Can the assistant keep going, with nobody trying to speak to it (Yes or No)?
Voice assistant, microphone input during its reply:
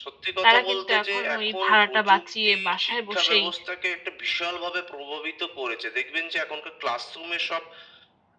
No